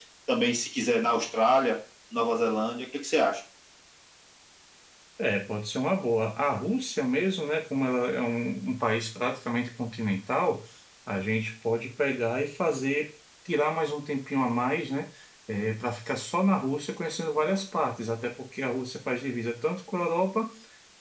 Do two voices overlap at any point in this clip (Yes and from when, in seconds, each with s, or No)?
No